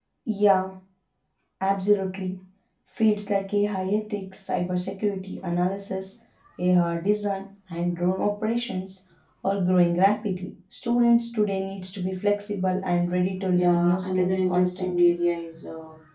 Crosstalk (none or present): present